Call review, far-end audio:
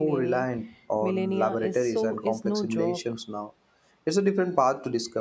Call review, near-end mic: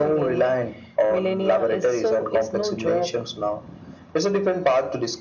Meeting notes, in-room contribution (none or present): none